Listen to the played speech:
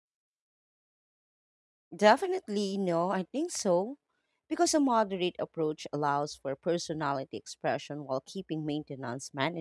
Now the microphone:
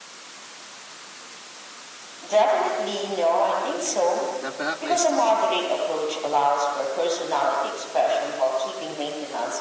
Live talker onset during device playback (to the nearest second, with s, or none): 4 s